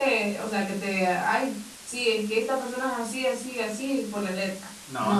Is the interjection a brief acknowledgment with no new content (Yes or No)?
No